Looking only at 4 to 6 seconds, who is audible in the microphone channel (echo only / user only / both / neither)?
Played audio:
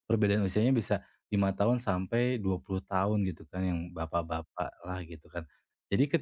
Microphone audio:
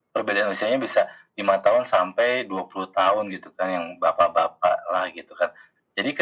echo only